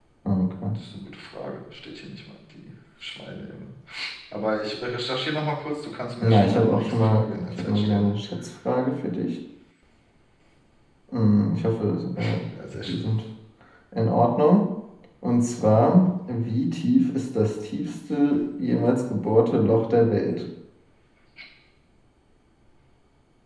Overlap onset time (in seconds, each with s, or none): 6.2 s